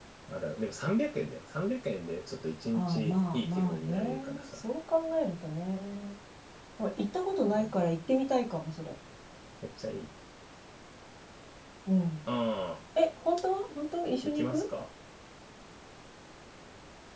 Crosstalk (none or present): present